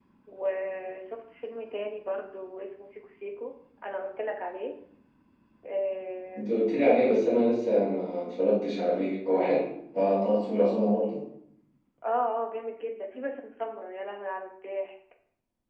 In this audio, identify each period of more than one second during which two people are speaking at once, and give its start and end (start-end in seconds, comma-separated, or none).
none